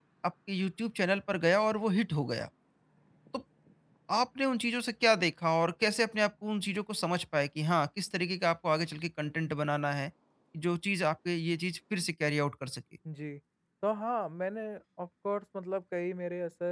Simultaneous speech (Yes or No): No